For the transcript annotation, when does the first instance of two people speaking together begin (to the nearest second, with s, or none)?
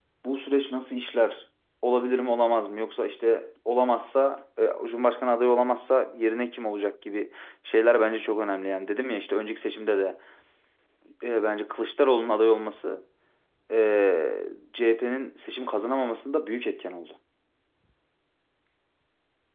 none